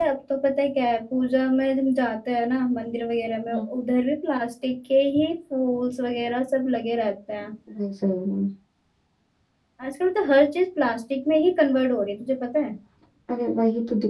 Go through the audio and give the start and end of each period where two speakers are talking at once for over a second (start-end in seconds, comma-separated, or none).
none